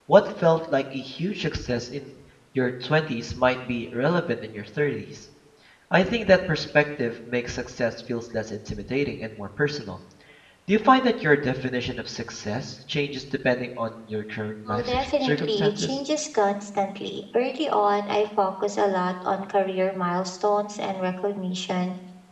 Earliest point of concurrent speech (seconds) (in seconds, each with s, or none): 14.7 s